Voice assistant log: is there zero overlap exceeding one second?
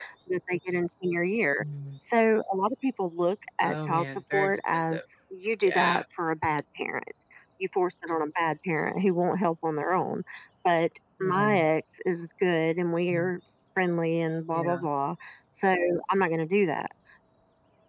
No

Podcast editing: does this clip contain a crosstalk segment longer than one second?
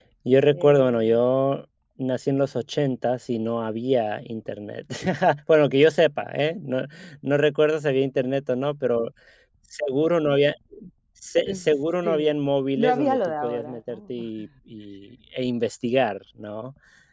Yes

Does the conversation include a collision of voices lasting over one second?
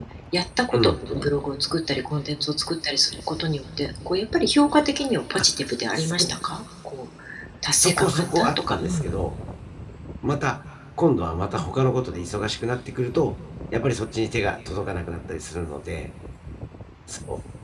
Yes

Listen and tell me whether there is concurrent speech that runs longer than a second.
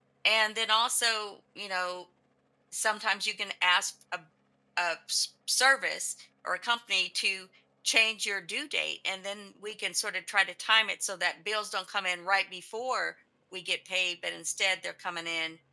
No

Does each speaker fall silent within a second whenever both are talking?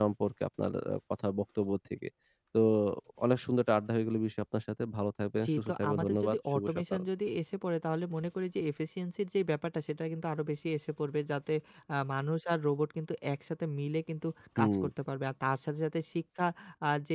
No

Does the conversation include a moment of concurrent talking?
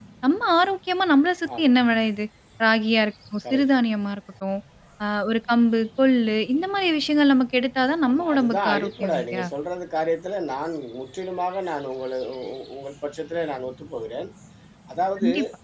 Yes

